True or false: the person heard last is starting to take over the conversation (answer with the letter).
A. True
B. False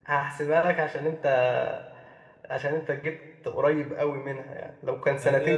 A